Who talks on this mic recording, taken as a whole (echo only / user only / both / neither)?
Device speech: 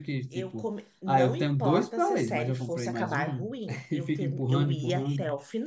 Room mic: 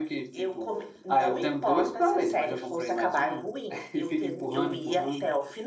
echo only